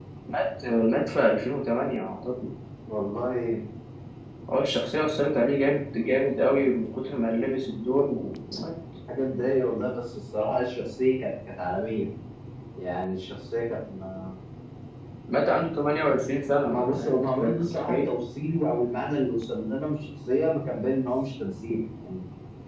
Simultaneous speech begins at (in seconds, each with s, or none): 16.6 s